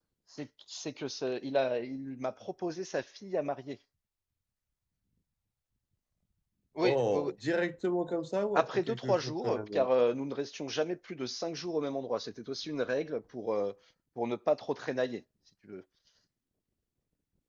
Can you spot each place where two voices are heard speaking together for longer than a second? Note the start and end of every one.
8.5-9.9

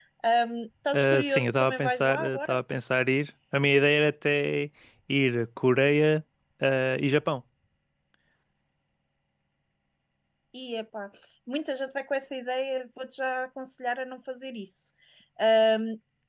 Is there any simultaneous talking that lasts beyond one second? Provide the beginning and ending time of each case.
0.9-2.6

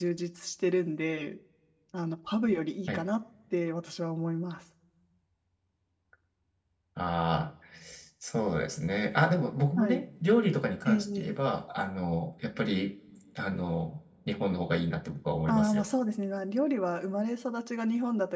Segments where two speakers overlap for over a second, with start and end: none

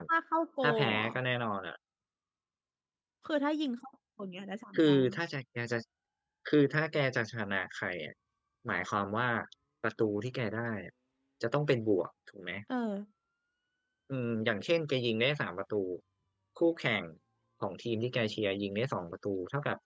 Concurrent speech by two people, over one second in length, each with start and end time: none

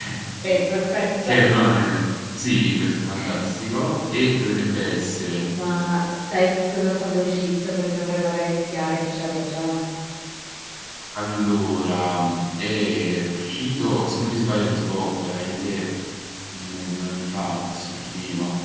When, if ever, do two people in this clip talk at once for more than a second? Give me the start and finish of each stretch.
none

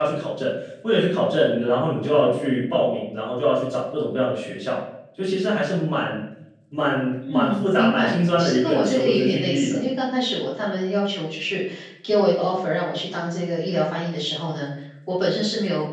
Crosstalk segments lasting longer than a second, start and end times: 7.2-9.8

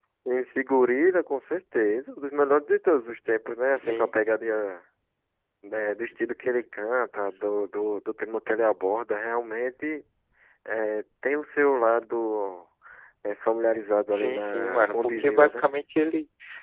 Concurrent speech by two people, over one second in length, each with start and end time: 14.1-15.7

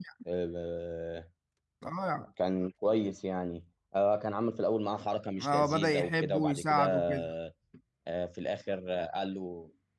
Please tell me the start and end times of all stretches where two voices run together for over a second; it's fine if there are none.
5.4-7.0

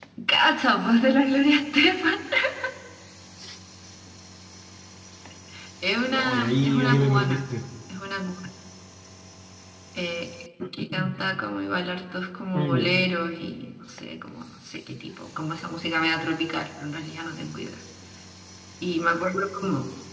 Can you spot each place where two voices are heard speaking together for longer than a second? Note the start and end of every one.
6.1-7.4

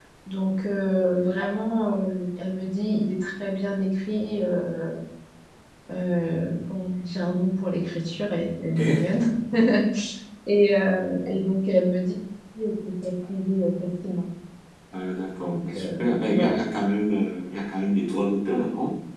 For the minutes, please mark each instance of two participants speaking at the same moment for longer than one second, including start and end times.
15.4-16.6

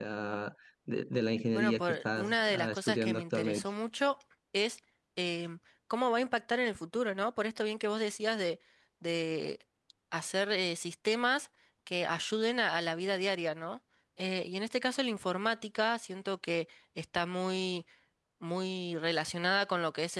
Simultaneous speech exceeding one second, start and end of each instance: 1.5-3.6

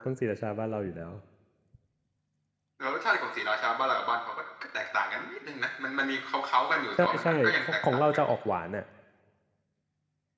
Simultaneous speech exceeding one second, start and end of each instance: 7.0-8.2

